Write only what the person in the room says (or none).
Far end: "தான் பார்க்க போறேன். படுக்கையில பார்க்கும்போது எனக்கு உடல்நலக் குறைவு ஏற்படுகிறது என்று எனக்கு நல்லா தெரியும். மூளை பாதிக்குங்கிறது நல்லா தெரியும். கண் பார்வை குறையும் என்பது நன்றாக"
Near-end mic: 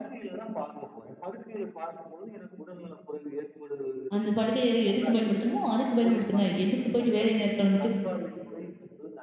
அந்த படுக்கை அறை எதுக்கு பயன்படுத்தணுமோ, அதுக்கு பயன்படுத்துங்க. எதுக்கு போயிட்டு வேலை நேரத்துல வந்துட்டு,